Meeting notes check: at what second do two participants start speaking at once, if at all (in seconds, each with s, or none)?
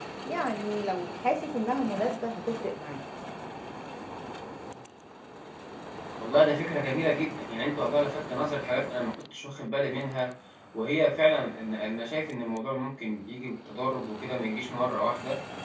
none